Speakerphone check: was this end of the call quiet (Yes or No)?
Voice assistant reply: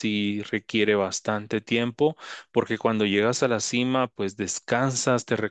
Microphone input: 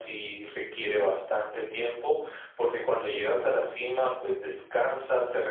Yes